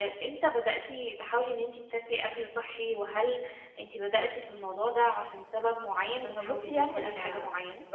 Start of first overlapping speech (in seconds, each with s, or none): 6.2 s